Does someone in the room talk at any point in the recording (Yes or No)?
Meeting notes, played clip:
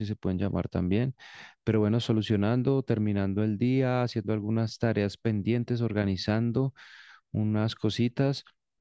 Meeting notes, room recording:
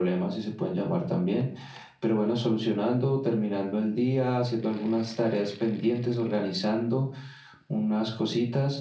No